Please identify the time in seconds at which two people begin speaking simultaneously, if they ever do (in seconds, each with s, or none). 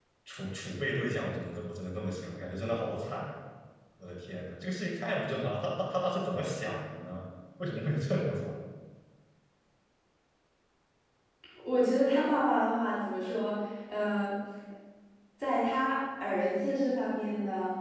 none